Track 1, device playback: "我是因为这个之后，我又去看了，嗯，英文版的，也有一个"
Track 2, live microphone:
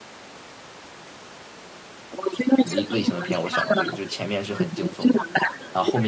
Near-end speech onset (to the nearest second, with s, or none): 3 s